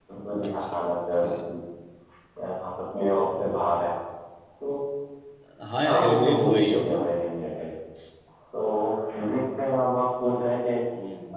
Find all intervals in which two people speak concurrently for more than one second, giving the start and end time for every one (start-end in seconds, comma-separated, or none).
5.8-7.0